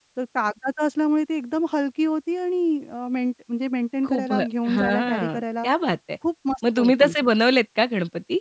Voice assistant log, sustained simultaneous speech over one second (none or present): present